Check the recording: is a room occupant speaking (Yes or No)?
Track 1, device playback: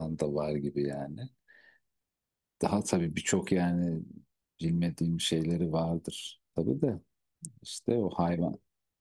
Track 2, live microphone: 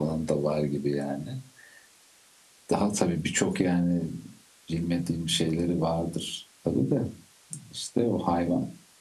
No